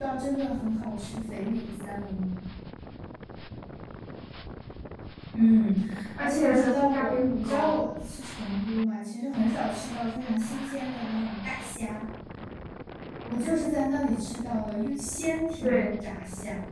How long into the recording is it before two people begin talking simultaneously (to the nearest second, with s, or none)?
6 s